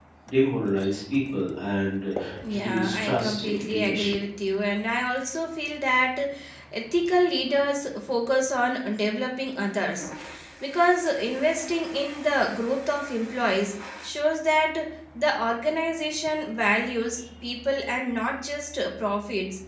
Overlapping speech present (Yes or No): Yes